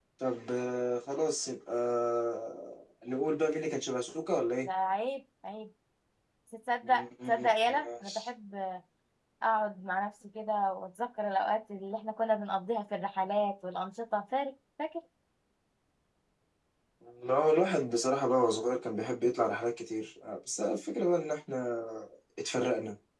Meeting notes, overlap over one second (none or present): present